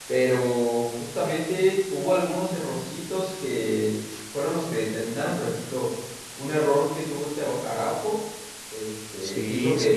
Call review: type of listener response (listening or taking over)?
listening